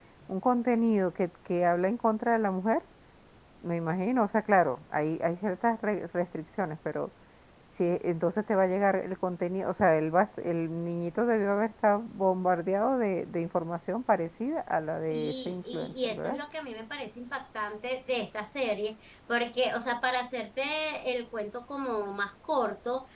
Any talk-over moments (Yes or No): Yes